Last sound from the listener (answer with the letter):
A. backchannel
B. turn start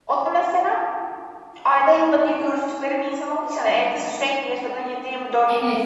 B